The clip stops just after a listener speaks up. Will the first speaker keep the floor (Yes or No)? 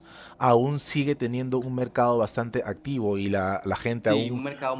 No